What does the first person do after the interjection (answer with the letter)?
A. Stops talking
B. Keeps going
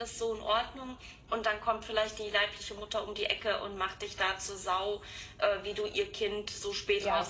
A